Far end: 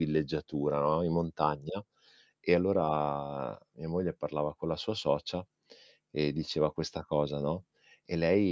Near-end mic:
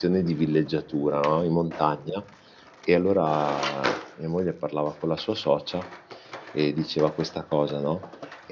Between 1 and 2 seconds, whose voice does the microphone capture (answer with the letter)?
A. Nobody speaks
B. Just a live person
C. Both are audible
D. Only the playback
D